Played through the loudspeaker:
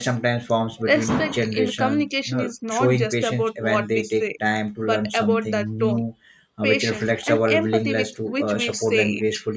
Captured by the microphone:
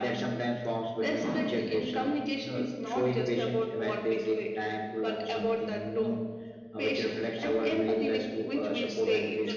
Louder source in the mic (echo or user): echo